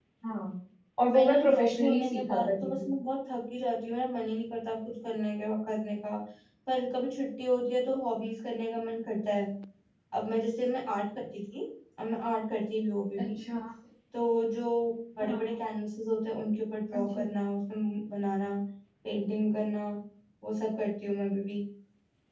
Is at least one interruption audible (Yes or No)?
Yes